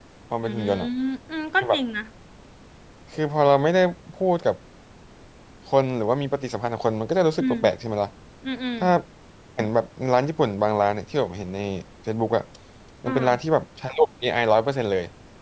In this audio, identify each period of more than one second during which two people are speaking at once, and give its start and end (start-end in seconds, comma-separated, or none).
none